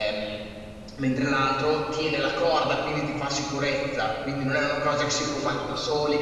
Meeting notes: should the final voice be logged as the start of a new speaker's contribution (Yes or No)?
No